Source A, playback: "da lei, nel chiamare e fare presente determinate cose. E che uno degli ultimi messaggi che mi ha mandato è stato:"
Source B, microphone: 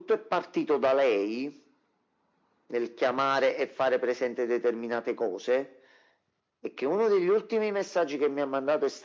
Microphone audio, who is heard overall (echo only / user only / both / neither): echo only